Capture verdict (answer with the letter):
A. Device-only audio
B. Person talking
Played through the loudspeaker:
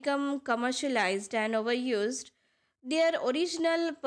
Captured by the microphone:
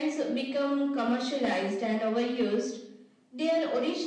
A